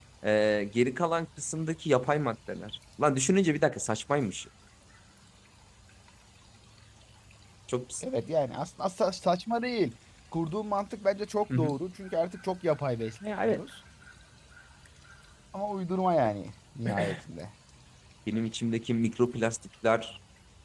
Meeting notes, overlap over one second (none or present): none